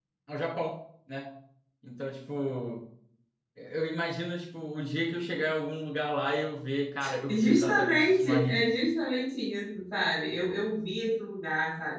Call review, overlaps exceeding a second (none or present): present